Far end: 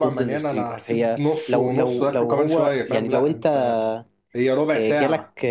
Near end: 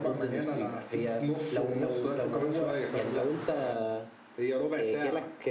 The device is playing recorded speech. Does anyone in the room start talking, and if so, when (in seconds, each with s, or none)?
none